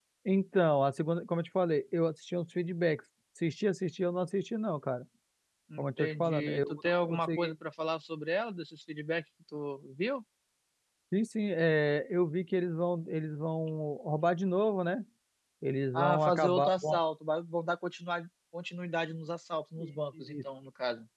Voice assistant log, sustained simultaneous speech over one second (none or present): present